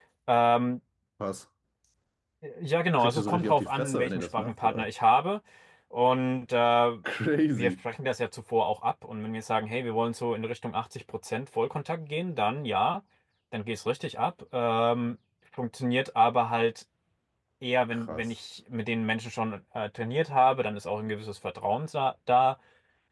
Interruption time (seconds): 3.0 s

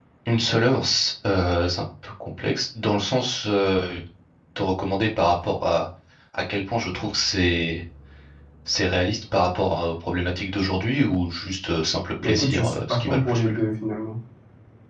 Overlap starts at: 12.2 s

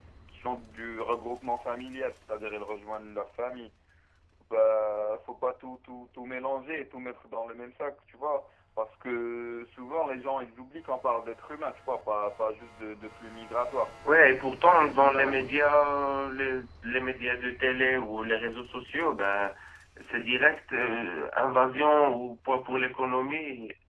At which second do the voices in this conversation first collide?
14.5 s

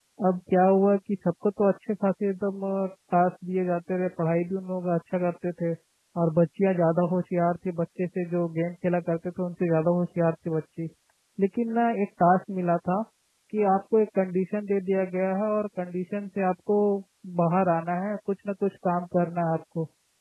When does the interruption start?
none

